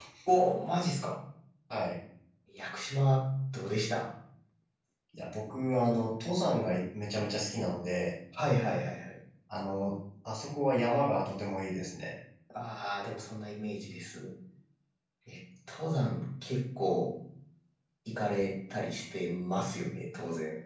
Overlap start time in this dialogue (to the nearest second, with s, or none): none